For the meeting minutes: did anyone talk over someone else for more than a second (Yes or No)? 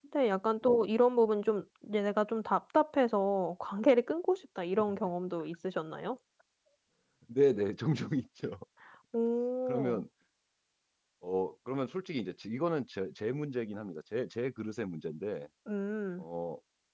No